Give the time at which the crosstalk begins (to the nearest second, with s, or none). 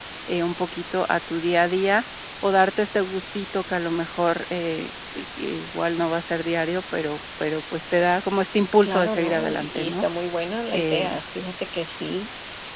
9 s